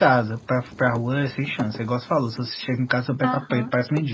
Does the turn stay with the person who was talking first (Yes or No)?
No